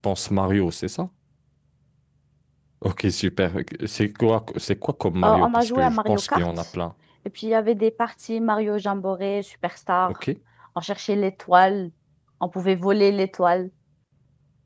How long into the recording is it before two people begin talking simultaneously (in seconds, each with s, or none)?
5.2 s